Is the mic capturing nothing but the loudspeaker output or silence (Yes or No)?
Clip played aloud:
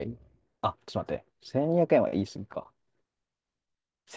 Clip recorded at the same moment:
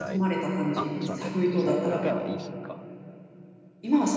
No